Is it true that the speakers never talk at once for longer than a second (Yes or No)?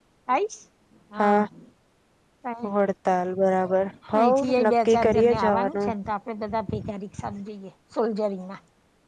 No